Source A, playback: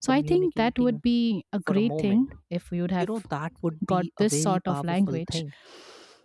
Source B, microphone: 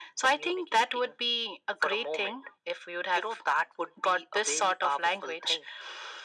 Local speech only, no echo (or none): none